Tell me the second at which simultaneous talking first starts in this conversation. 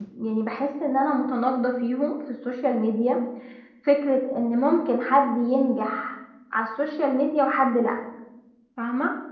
none

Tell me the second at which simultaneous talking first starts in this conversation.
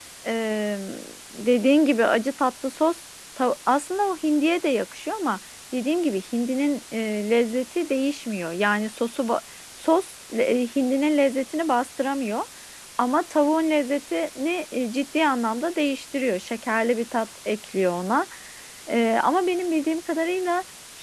none

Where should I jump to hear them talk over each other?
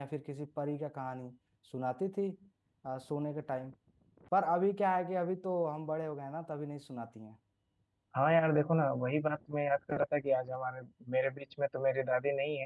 none

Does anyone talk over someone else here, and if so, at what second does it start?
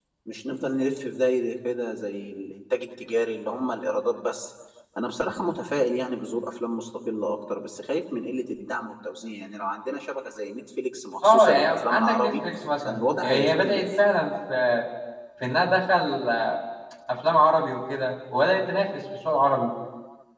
11.2 s

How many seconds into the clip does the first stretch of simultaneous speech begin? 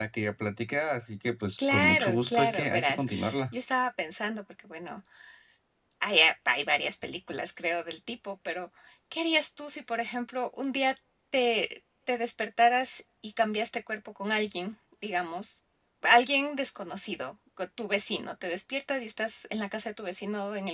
1.6 s

